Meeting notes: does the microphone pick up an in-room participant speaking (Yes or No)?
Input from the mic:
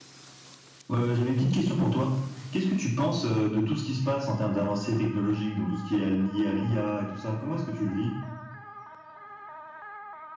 No